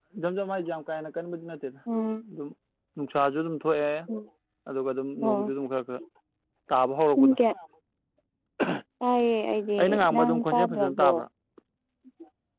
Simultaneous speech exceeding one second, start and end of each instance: 9.8-11.1

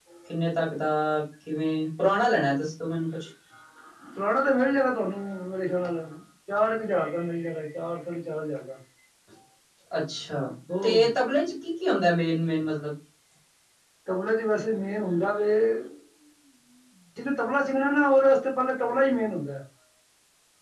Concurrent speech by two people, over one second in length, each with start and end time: none

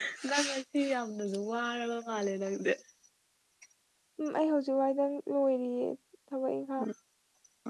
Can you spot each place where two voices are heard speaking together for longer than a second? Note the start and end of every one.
none

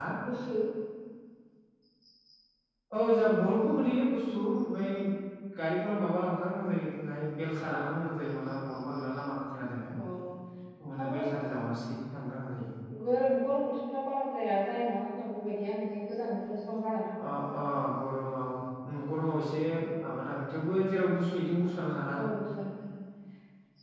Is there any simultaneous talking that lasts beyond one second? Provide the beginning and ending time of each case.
none

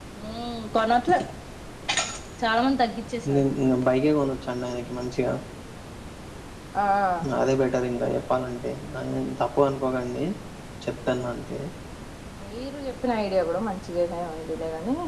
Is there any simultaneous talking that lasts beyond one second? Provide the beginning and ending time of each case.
none

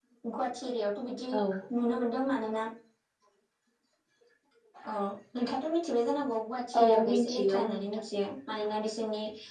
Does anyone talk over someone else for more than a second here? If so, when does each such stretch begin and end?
6.8-8.0

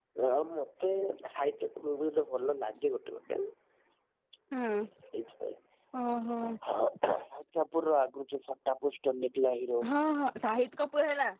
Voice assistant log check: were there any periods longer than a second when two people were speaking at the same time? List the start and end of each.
none

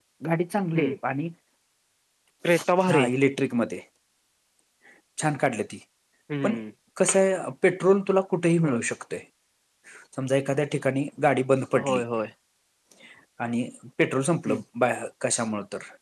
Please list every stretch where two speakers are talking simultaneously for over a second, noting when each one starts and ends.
none

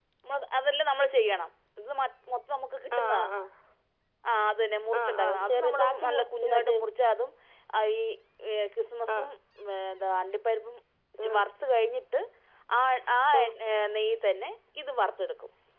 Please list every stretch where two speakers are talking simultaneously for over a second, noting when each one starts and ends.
5.0-6.8

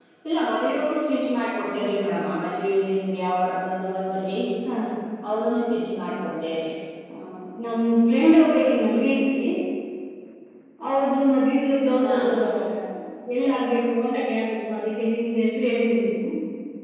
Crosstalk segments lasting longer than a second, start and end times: none

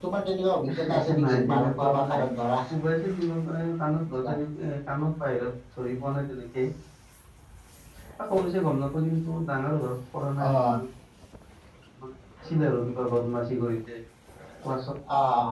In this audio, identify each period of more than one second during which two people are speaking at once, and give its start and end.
0.8-2.2

